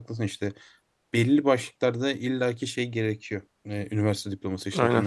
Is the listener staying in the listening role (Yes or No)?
Yes